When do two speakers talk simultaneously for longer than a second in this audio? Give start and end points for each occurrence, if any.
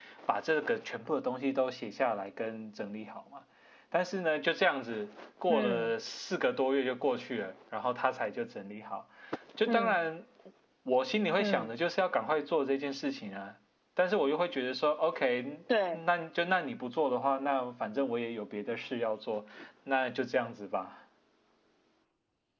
none

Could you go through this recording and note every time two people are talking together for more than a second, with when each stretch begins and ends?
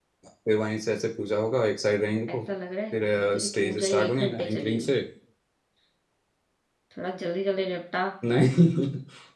3.4-5.0

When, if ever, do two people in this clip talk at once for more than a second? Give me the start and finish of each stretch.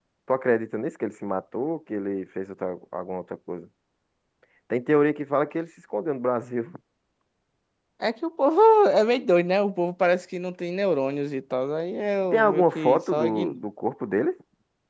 12.3-13.6

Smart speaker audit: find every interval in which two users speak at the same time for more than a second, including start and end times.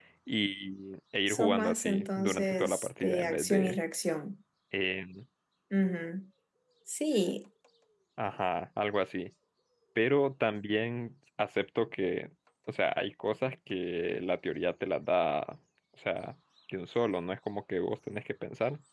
1.3-3.8

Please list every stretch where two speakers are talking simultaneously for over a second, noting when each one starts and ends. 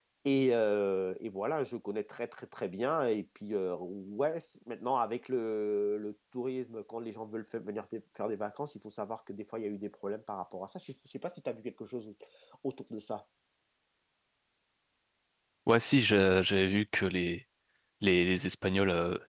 none

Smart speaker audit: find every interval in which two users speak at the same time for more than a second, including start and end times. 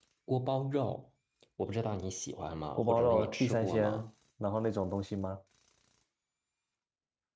2.8-4.0

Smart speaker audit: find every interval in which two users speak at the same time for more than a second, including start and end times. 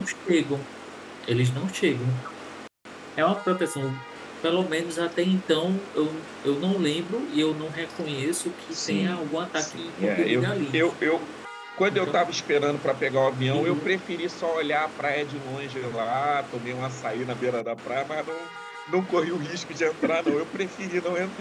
8.7-10.9

